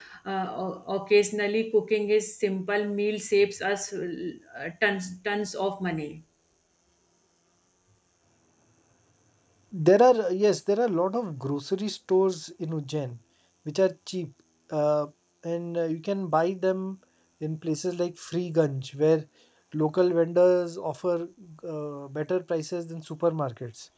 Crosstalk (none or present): none